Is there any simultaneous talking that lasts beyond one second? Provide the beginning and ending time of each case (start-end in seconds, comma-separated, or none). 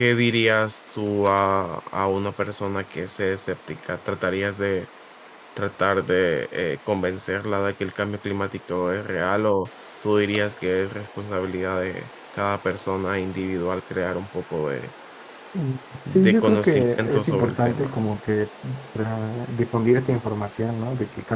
16.1-17.9